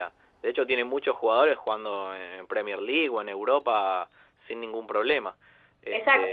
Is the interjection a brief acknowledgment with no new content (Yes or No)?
No